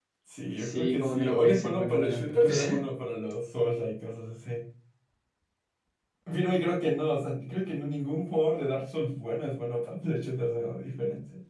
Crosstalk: present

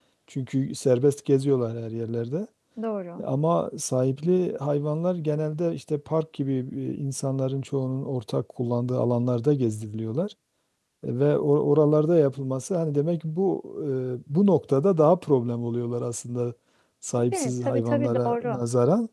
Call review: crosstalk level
present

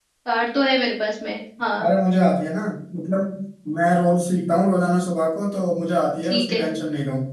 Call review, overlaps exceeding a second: none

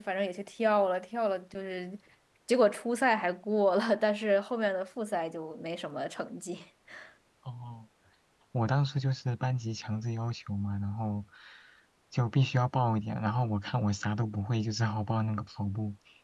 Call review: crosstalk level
none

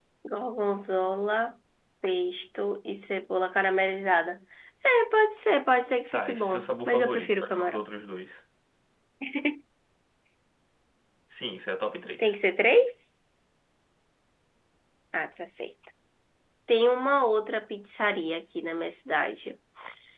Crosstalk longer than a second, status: present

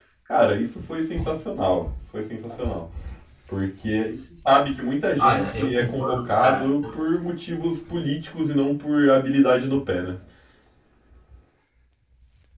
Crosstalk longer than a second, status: present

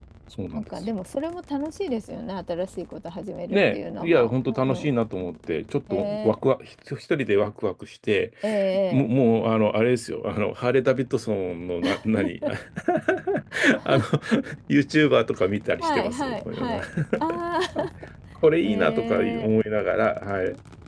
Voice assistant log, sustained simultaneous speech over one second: present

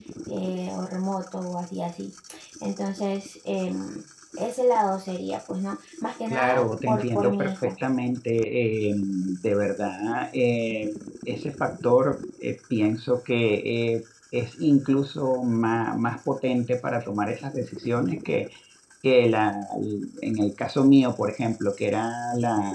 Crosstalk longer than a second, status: present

